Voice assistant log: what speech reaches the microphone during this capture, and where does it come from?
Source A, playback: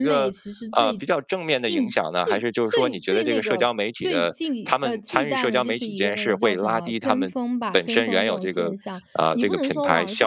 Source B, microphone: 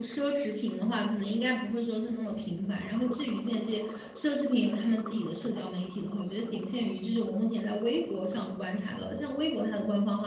user only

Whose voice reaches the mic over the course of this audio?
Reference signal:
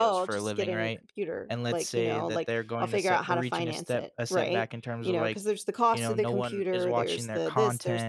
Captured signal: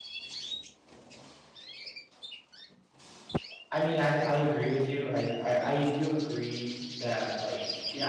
user only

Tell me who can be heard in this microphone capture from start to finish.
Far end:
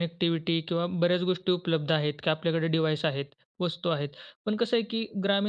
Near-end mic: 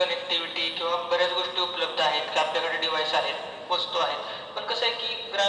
echo only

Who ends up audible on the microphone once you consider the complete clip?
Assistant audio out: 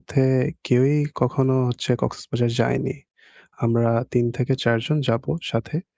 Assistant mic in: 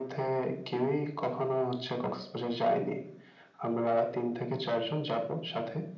echo only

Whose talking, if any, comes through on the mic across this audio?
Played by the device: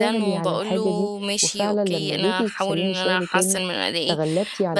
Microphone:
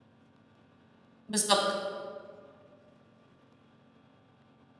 user only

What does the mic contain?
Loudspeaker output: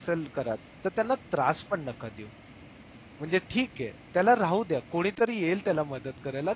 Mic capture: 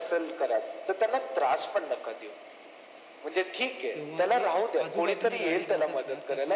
both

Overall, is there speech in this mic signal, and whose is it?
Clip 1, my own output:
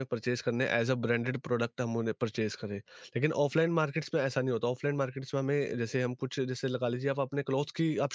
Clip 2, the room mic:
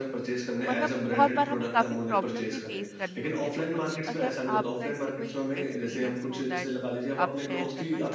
both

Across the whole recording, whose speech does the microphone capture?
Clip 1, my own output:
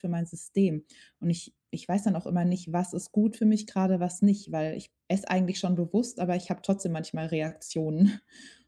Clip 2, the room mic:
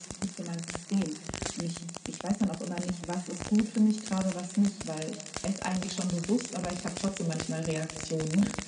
echo only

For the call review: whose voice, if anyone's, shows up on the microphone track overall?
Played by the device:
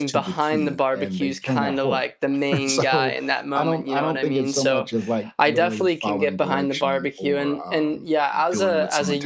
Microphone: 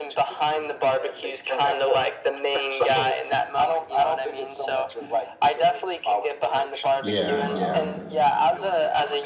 both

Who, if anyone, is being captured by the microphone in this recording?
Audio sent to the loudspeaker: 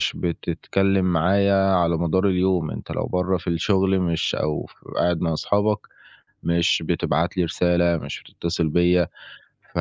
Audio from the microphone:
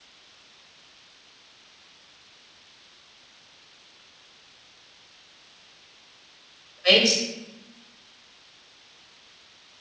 user only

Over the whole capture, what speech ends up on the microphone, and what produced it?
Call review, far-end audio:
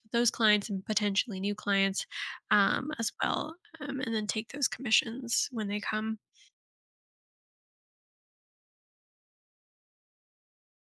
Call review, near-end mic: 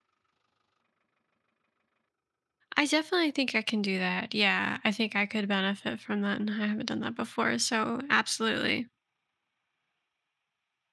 user only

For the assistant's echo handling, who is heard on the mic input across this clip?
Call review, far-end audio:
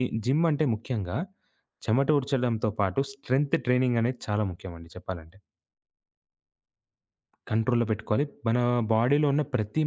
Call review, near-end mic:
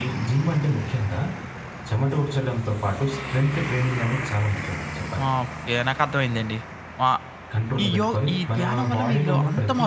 both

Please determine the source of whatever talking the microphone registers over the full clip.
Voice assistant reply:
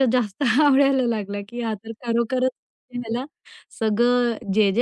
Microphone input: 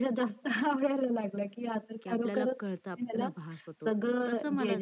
both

